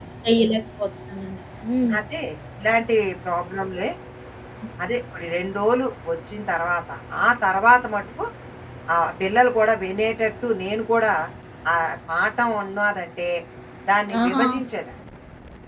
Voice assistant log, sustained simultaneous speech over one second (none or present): none